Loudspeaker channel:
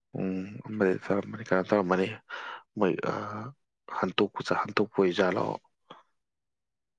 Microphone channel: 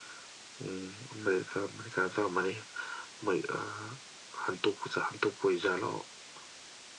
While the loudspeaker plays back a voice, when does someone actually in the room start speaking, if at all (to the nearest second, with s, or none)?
none